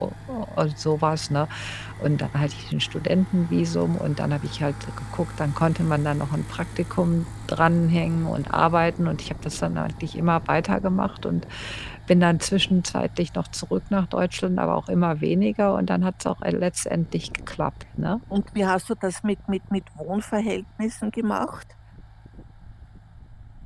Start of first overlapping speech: none

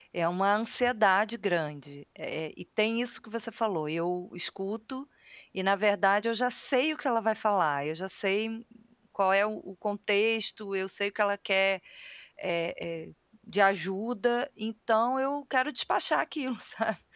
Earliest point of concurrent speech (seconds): none

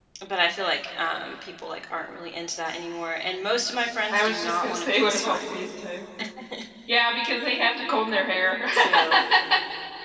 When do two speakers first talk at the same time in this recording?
4 s

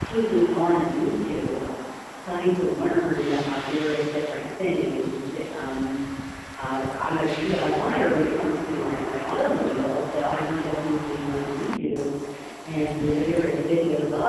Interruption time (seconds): none

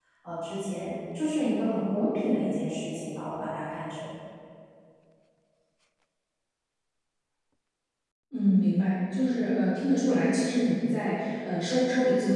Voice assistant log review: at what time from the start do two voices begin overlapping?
none

